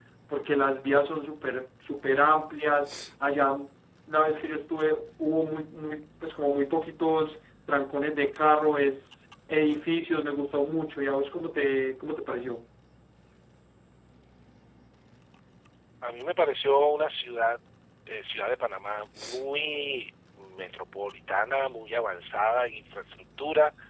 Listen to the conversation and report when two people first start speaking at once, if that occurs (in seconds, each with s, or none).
none